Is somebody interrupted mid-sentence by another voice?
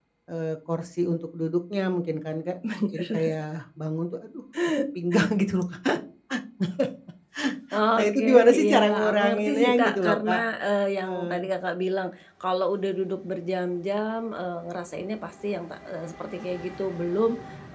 Yes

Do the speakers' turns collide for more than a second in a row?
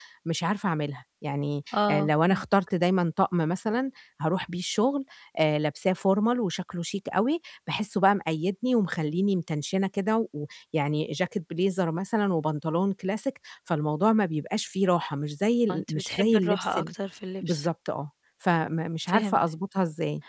Yes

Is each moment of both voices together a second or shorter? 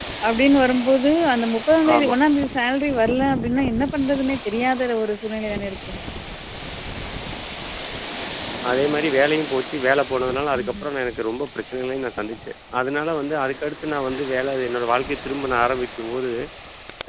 Yes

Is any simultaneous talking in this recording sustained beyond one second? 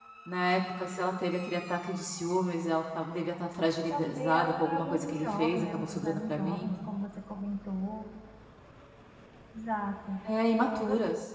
Yes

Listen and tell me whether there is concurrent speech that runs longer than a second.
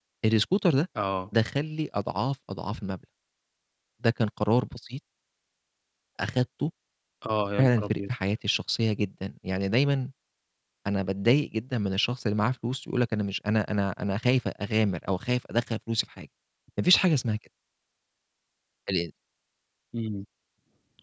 No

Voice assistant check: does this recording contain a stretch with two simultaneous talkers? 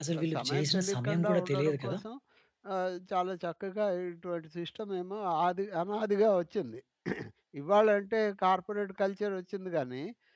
Yes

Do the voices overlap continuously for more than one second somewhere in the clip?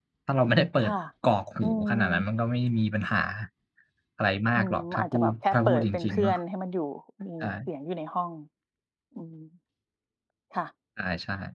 Yes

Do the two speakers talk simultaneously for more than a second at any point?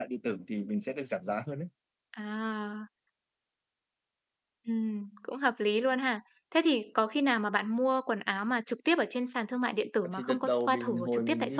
Yes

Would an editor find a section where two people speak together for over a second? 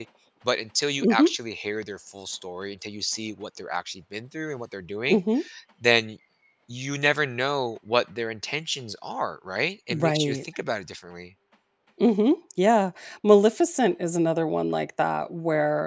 No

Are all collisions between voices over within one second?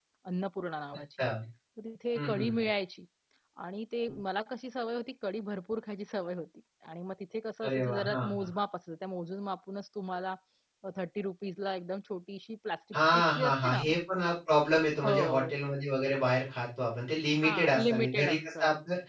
No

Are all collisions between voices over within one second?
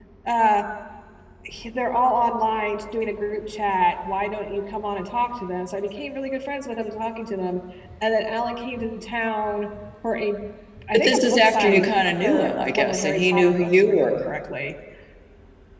No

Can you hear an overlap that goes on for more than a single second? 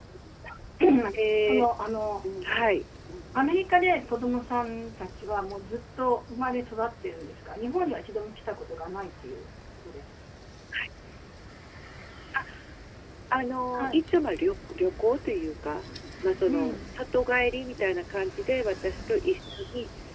No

